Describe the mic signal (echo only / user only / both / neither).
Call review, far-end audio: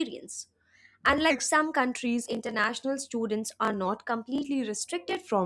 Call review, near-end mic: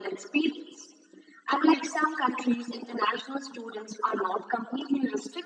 echo only